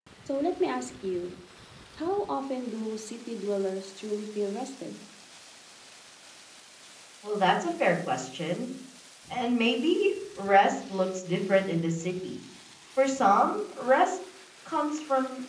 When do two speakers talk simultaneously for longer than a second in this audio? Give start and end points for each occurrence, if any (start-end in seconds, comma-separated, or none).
none